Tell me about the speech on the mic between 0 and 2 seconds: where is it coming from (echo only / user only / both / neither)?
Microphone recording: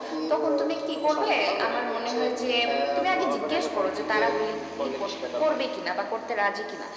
echo only